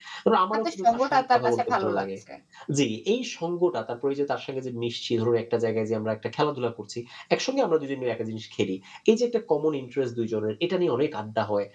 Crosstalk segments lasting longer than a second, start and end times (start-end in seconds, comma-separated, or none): 0.5-2.0